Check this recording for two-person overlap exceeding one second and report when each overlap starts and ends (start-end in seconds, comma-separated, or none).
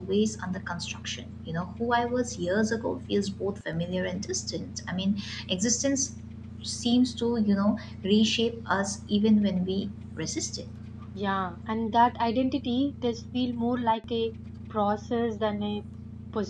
none